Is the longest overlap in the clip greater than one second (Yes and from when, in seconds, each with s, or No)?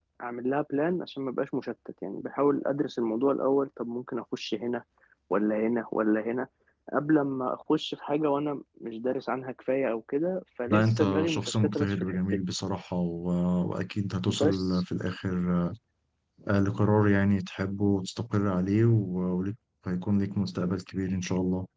Yes, from 10.7 s